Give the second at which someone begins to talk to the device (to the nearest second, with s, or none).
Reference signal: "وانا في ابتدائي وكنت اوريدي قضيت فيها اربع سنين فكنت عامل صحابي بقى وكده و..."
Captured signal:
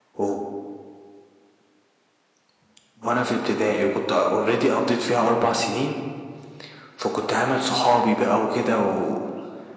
none